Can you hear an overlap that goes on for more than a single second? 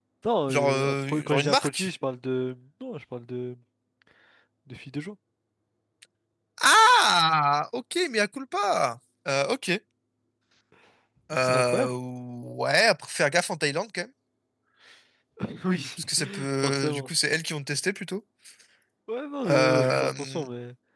Yes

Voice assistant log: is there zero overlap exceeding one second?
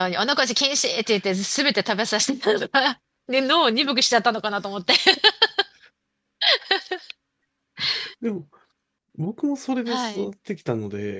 Yes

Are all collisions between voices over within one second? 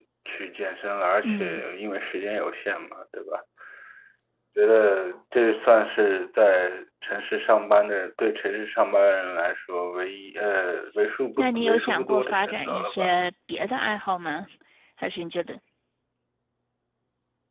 No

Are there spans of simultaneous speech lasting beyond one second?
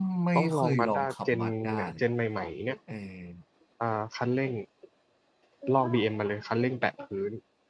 Yes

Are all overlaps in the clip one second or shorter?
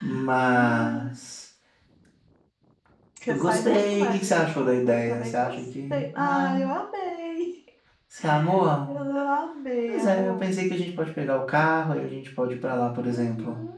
No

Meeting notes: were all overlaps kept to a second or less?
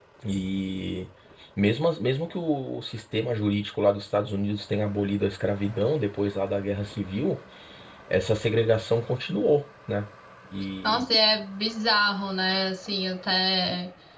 Yes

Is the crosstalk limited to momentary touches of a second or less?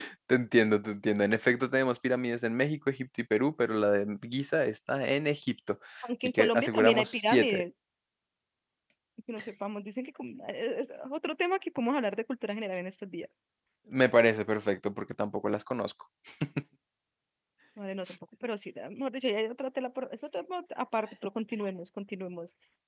No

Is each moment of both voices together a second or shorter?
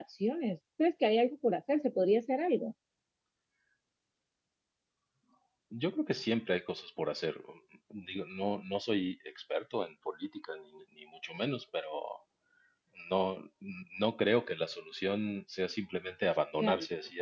Yes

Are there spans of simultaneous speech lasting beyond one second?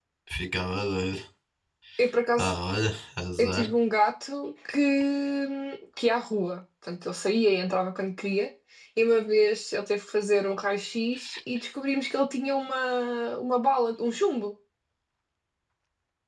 No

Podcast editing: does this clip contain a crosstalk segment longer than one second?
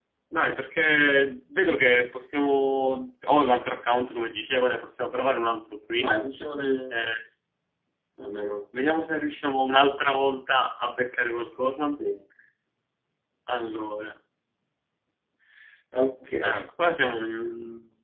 No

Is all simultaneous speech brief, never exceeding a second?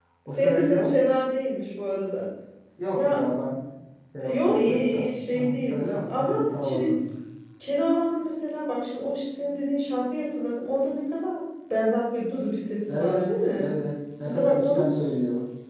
No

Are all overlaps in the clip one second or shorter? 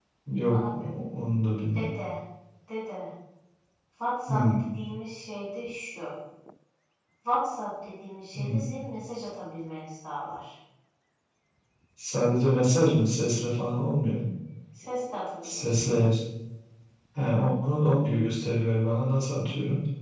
Yes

